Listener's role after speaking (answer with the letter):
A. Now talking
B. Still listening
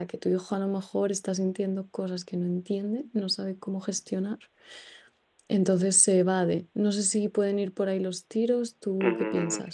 A